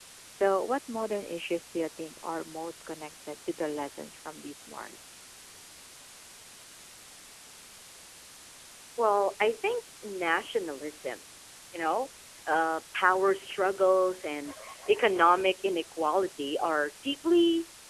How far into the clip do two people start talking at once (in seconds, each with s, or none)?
none